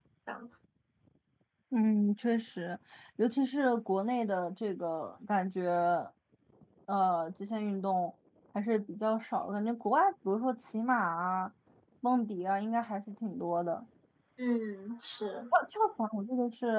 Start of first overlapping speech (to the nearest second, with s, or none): none